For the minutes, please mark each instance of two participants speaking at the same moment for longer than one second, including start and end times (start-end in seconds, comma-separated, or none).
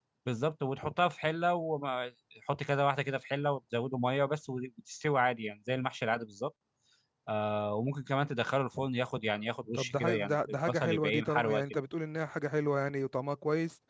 9.8-11.6